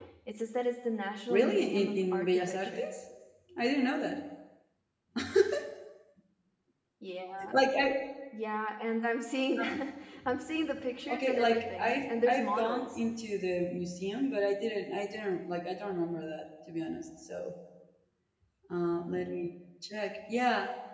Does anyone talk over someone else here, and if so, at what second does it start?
1 s

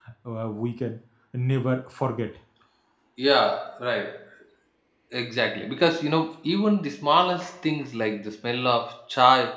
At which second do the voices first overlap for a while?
none

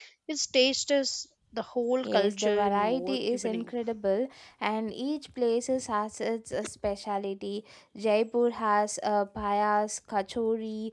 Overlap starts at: 2 s

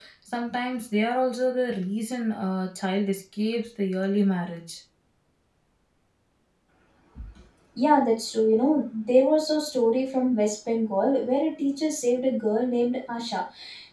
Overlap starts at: none

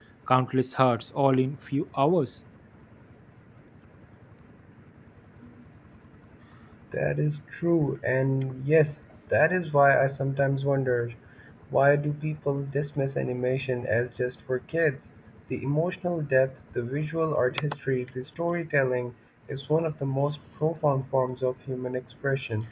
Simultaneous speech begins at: none

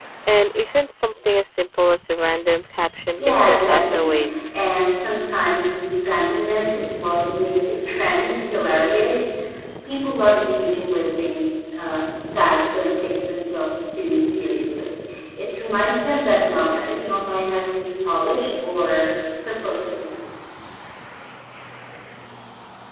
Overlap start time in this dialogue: 3 s

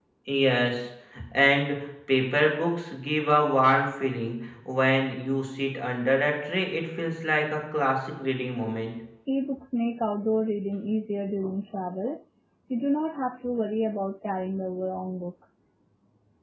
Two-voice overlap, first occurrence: none

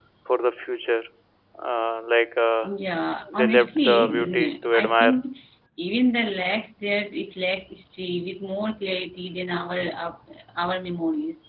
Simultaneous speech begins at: 3 s

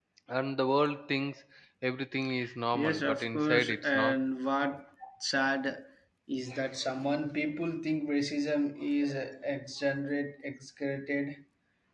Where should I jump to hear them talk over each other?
3 s

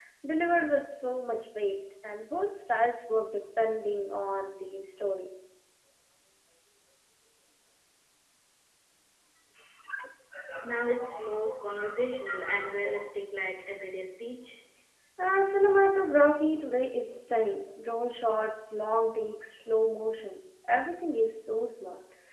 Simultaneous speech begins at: none

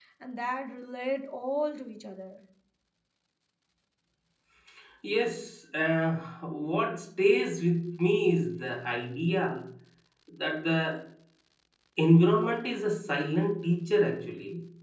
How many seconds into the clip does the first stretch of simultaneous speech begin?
none

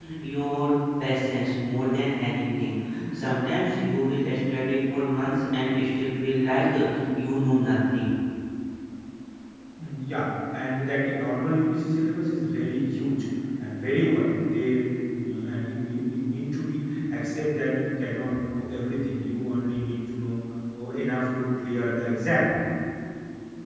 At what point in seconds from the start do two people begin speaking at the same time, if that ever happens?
none

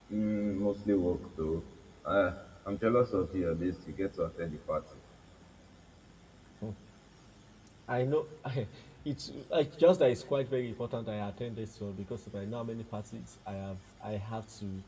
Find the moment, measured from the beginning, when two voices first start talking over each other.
none

